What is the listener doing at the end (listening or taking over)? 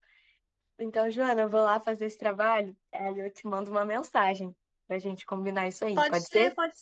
taking over